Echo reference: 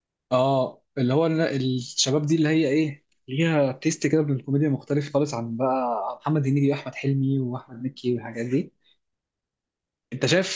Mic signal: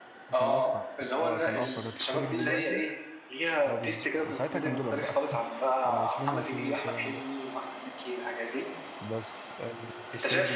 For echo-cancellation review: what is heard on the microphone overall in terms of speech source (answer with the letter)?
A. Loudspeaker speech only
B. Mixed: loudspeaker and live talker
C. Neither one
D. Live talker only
B